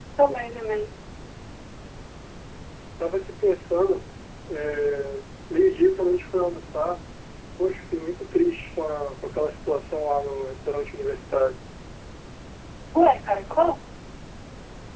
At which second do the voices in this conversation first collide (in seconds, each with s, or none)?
none